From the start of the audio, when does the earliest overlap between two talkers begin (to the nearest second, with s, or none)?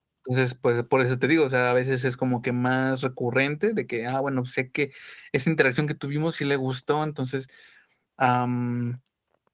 none